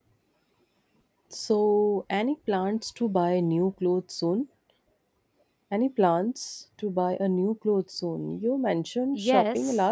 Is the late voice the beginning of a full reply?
Yes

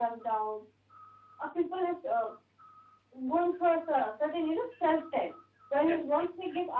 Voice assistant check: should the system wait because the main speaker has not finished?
Yes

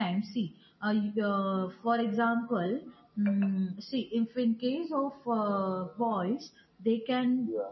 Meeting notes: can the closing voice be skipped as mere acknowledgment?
Yes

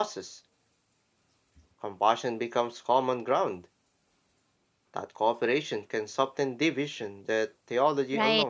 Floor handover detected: Yes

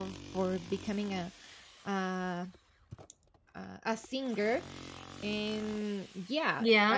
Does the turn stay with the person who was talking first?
Yes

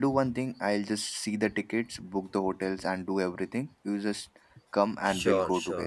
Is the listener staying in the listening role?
No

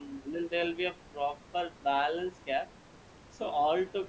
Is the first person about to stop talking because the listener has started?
No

